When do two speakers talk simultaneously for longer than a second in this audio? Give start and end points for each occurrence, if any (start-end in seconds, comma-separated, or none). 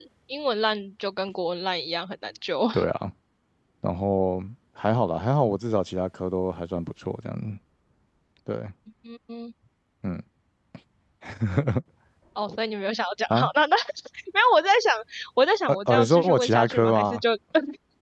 15.7-17.2